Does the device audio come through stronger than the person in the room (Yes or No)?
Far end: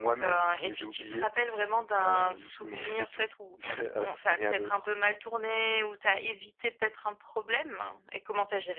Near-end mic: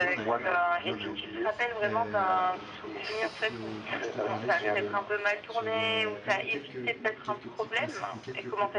Yes